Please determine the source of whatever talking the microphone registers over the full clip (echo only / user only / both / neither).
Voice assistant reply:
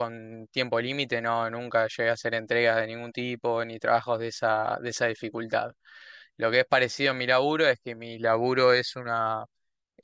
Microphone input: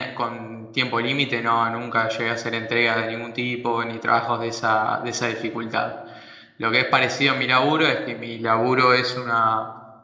echo only